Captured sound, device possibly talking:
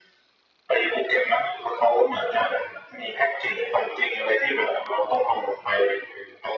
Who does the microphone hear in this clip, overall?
echo only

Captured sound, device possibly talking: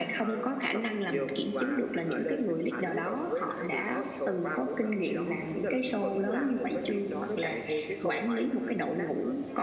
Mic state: echo only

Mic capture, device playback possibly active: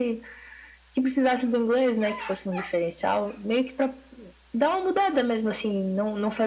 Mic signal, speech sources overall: echo only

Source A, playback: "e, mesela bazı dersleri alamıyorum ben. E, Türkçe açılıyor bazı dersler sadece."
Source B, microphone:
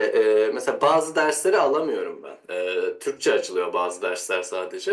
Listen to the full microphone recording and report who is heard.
echo only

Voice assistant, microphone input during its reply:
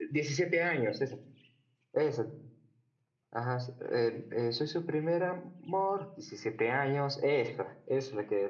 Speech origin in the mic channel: user only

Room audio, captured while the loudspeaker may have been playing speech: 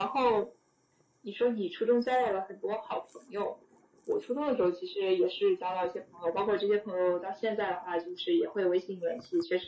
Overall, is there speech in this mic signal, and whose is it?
echo only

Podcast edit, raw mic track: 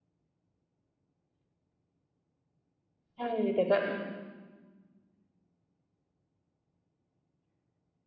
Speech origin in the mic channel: user only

